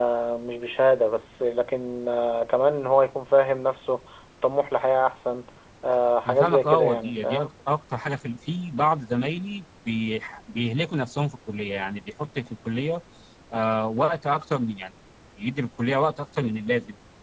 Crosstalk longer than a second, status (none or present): present